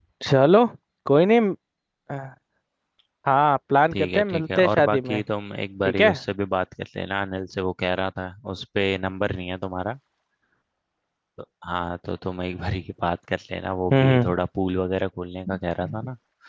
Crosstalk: present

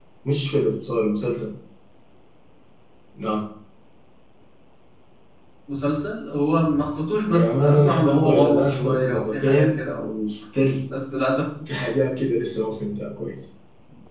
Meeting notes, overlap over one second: present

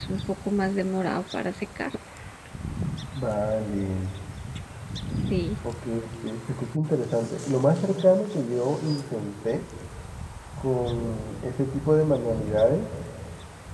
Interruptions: none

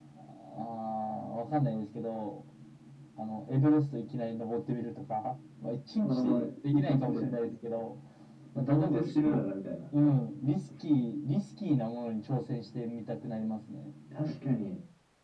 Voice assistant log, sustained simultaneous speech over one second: present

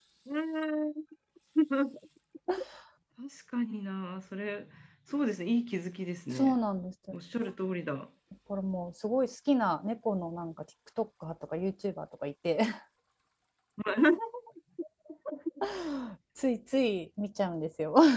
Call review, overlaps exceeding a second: none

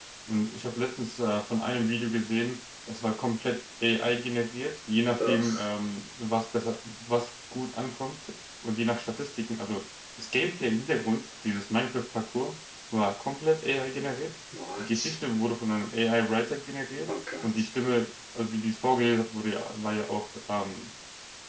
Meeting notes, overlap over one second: none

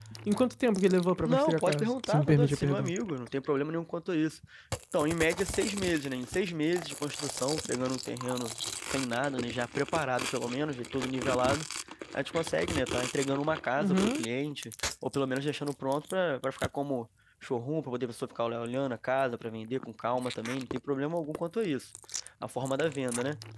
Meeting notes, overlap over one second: present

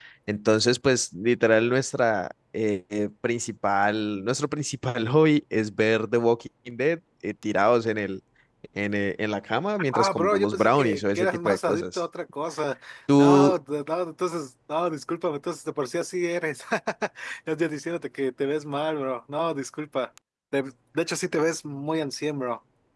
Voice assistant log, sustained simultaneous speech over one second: present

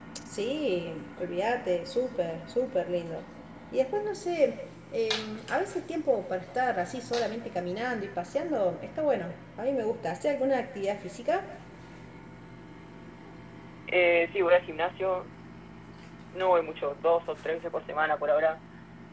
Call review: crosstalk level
none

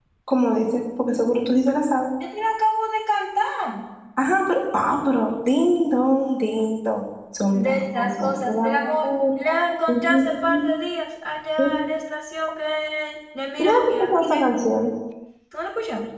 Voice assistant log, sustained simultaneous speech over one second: present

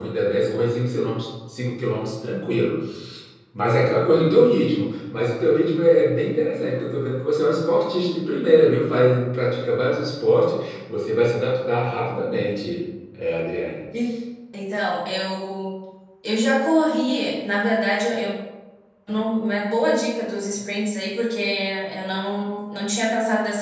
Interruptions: none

